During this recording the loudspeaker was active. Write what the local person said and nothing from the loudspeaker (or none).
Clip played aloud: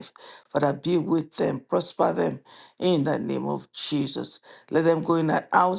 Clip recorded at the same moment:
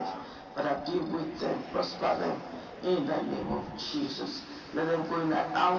none